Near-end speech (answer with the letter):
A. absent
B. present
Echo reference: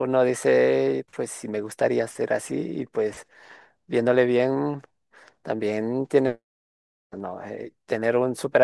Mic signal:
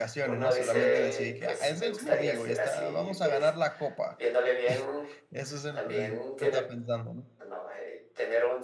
B